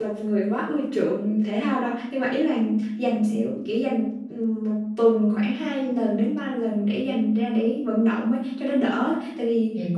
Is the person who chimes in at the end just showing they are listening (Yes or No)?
Yes